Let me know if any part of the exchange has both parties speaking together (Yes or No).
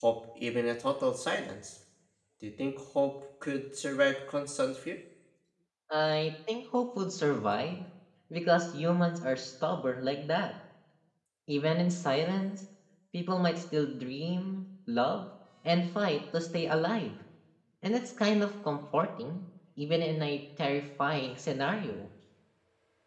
No